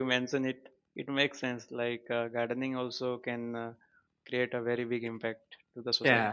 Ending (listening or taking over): taking over